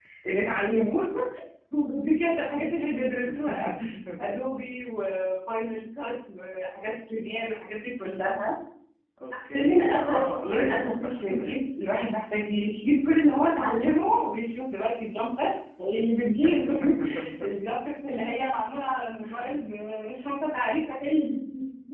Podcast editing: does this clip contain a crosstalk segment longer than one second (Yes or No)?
Yes